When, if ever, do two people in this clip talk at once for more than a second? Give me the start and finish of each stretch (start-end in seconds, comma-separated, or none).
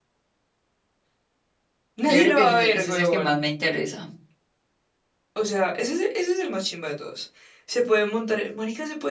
2.0-3.4